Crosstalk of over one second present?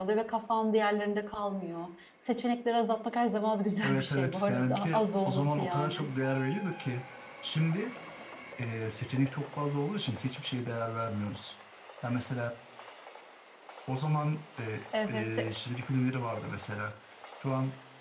Yes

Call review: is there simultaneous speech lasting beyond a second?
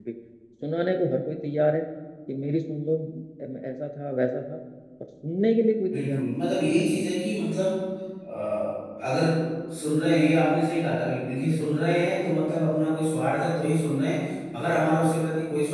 Yes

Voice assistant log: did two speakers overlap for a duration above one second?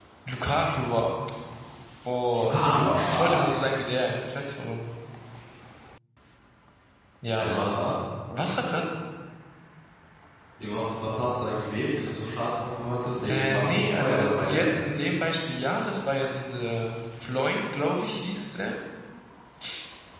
Yes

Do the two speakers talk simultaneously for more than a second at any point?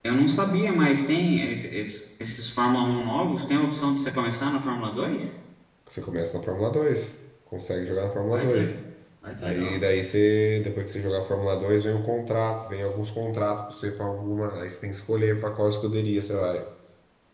No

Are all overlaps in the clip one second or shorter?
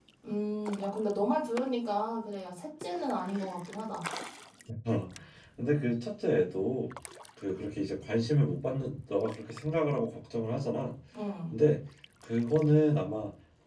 Yes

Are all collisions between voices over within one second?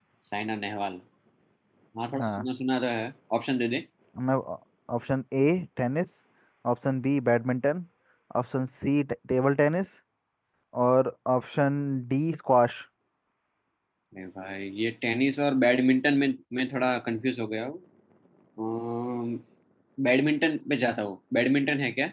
Yes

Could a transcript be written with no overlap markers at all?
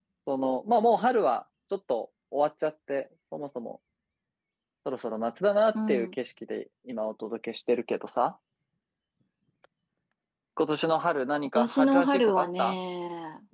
No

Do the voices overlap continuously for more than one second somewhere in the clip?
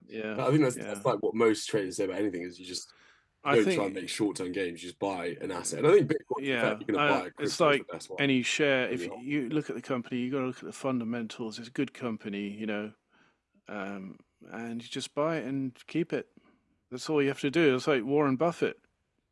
Yes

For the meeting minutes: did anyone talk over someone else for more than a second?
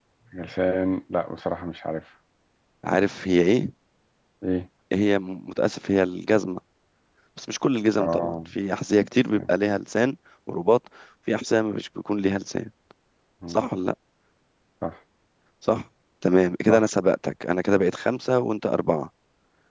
No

